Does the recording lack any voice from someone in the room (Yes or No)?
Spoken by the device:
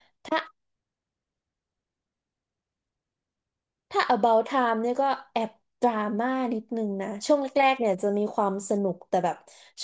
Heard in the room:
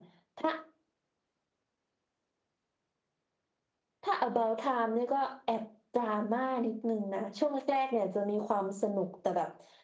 Yes